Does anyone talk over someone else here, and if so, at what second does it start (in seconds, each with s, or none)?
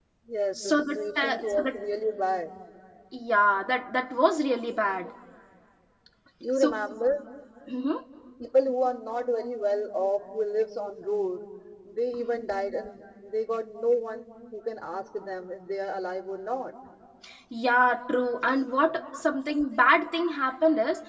0.5 s